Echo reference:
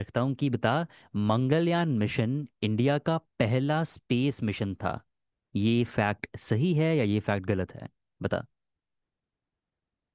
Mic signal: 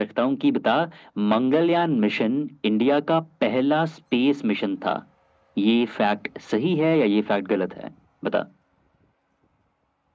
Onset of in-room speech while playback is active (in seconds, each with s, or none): none